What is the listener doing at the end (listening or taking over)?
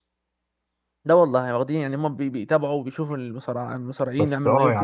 taking over